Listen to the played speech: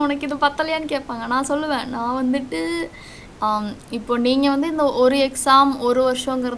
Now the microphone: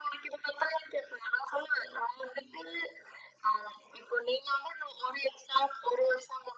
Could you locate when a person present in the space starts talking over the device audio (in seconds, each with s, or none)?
none